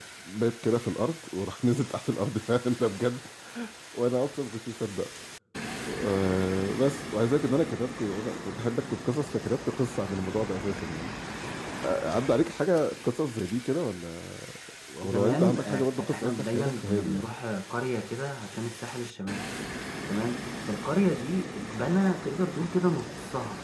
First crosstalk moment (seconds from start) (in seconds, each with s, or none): 15.0 s